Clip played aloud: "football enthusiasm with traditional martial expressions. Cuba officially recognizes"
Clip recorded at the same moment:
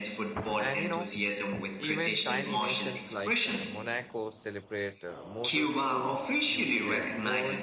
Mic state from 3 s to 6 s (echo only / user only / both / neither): both